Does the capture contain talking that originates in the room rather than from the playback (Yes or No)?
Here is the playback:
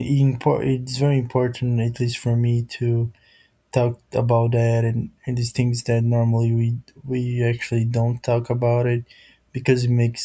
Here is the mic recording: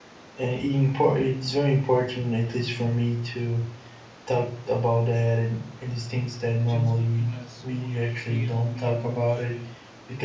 Yes